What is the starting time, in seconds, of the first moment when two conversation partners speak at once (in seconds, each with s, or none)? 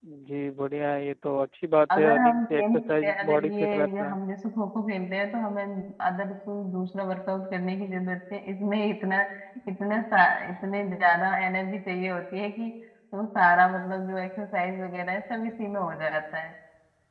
1.9 s